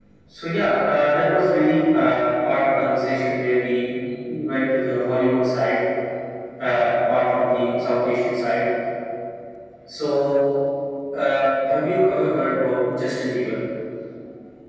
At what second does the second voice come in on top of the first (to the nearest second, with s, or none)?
none